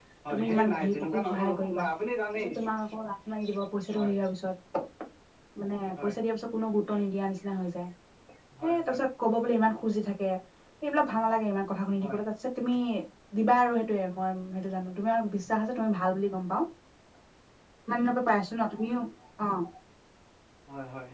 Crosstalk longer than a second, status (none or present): present